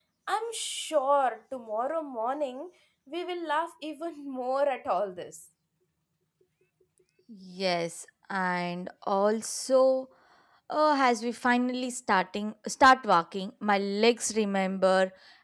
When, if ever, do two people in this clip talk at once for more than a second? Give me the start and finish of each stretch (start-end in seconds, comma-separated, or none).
none